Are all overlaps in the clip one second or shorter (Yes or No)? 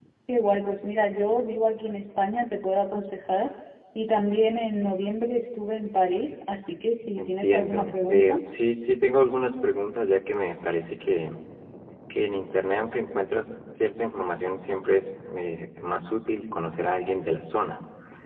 No